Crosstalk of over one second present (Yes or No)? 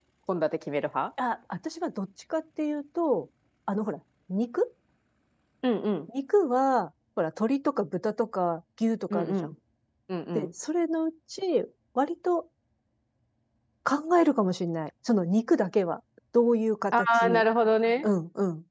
No